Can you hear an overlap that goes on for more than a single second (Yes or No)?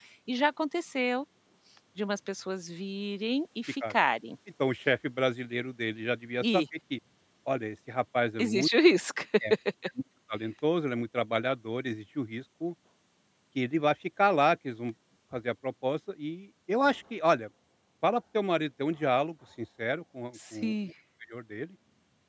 No